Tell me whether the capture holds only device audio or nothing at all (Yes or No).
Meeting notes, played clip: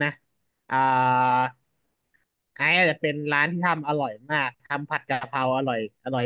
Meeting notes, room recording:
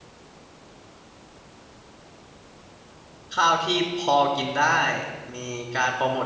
No